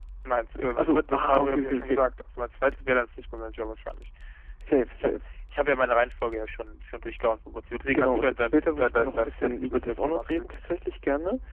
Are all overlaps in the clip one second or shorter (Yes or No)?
No